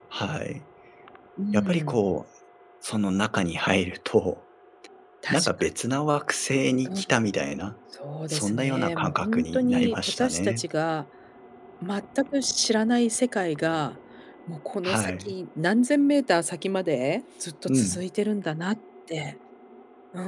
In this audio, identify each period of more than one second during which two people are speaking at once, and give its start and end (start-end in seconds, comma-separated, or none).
8.3-10.7